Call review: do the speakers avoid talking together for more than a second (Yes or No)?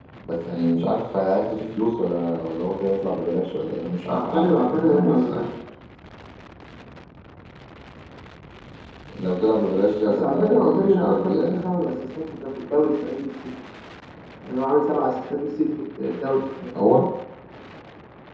No